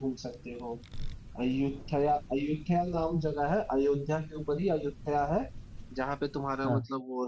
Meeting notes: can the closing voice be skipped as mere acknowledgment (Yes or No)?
Yes